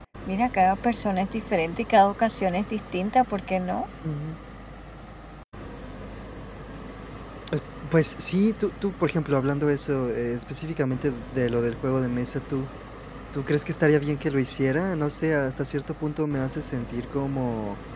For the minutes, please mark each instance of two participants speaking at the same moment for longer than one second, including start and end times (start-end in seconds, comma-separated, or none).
none